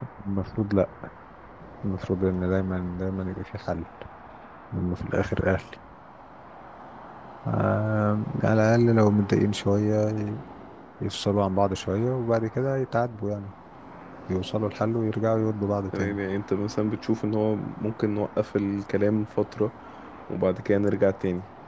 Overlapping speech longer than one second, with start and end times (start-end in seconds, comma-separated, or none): none